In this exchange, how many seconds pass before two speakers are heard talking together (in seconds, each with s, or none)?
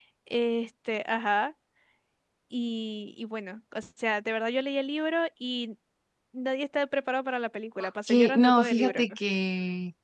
7.8 s